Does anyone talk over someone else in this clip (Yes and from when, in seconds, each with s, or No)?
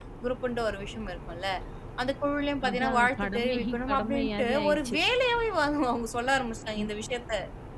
Yes, from 2.7 s